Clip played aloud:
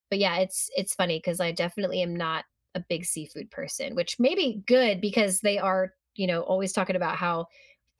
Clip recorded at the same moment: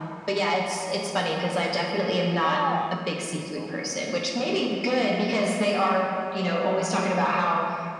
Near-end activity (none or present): present